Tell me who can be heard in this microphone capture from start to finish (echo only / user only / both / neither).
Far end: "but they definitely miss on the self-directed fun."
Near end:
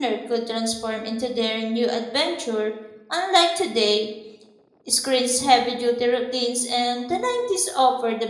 user only